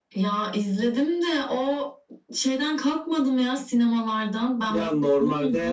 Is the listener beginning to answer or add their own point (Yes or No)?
Yes